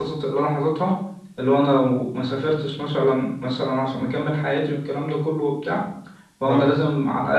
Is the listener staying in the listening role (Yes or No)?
Yes